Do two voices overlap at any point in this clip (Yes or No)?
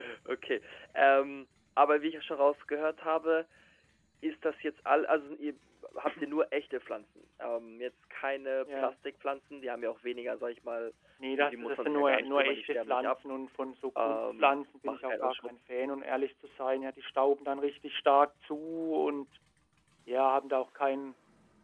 Yes